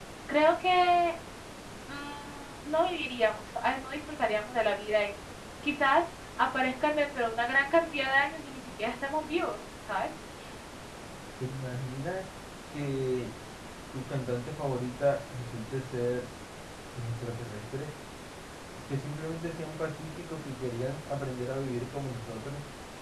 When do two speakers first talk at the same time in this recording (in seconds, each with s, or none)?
none